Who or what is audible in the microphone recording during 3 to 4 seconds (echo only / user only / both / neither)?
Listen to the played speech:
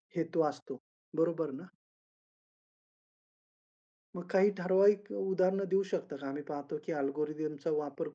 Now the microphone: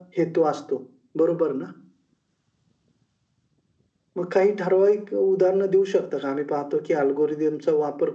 neither